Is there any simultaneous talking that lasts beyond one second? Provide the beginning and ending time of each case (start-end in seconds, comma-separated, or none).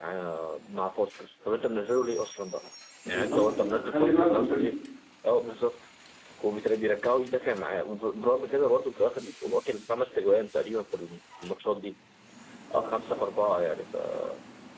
3.1-4.7